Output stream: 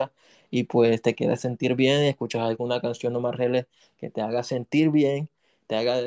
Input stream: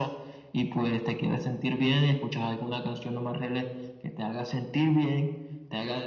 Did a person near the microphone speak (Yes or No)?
No